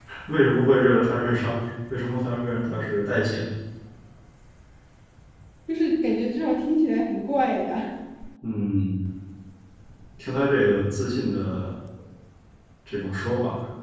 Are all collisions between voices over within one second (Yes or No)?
Yes